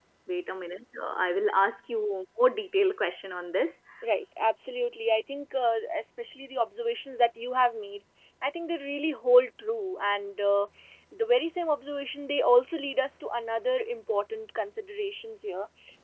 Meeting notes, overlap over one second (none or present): none